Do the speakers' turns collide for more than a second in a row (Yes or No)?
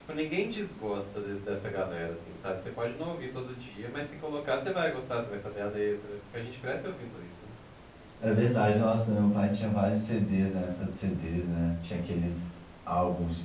No